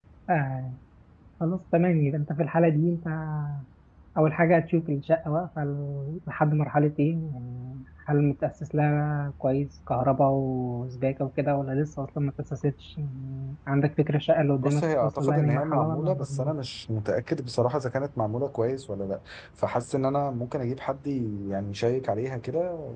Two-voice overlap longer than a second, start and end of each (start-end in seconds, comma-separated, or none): 14.6-16.5